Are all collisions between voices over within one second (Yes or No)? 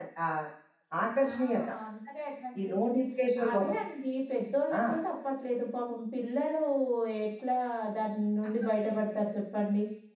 Yes